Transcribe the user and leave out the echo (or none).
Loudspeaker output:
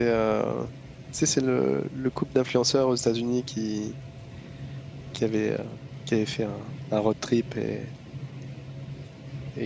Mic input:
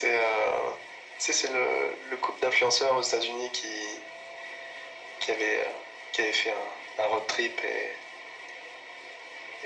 none